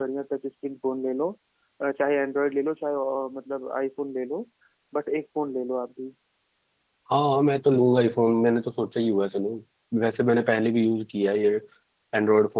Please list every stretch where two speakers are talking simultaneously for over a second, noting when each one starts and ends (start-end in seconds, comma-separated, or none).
none